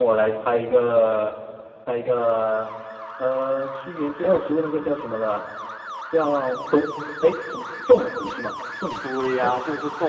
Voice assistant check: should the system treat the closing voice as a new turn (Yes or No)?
Yes